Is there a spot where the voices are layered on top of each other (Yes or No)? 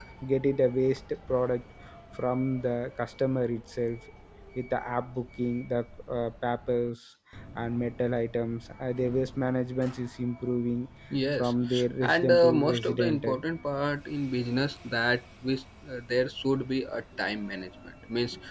Yes